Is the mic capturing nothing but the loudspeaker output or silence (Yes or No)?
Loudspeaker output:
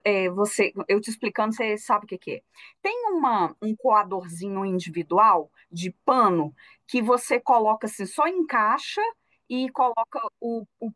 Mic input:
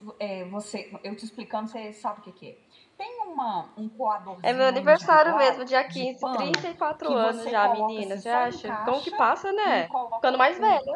No